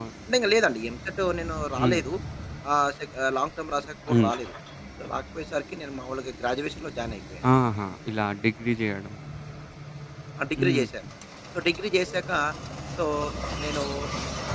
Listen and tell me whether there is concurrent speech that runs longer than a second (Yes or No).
No